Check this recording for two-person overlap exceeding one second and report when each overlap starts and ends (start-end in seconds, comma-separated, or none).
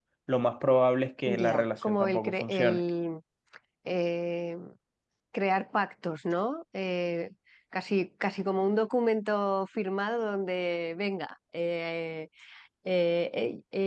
1.2-2.8